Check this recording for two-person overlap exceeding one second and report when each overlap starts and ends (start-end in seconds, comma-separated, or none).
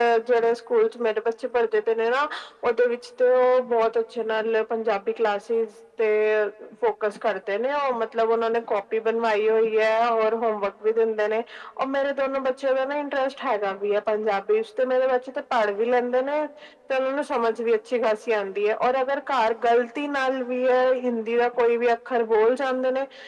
none